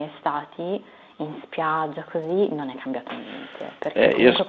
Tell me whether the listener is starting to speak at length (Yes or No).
Yes